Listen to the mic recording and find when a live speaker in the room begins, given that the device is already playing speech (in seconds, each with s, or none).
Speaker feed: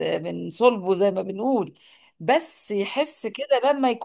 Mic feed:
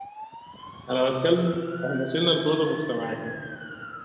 0.9 s